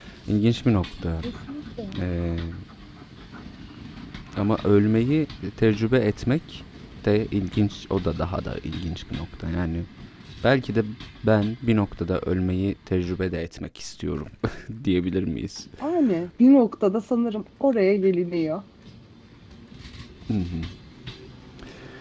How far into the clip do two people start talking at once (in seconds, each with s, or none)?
none